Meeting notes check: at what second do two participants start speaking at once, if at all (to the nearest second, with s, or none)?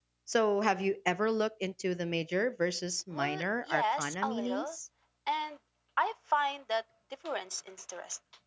3 s